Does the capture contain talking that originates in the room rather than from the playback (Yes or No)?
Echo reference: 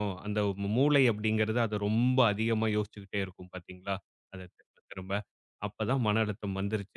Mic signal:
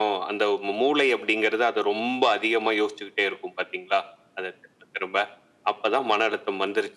No